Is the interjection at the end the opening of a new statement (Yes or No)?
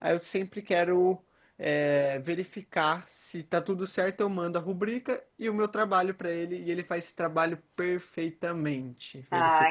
Yes